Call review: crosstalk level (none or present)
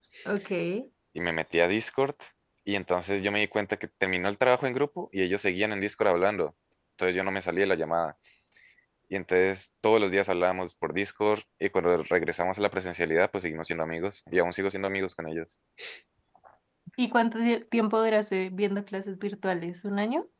none